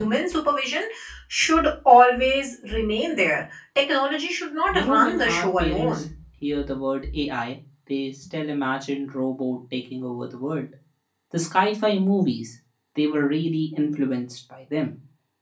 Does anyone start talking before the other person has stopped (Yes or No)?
Yes